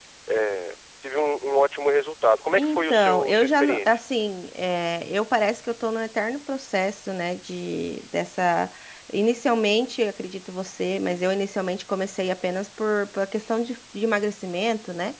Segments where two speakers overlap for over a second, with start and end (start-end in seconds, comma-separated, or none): 2.6-4.0